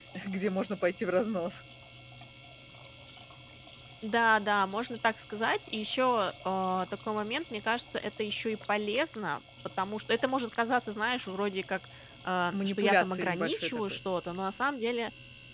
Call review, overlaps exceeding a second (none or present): present